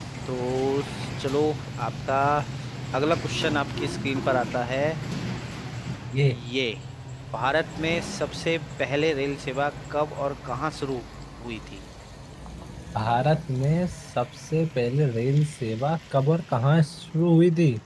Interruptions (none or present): none